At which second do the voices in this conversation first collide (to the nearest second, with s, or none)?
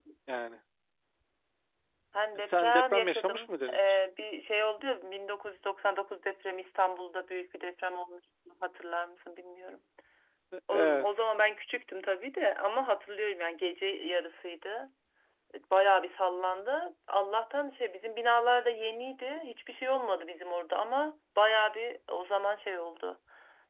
2 s